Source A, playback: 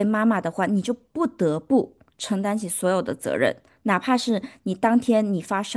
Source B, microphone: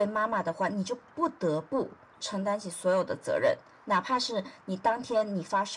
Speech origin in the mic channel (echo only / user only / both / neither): echo only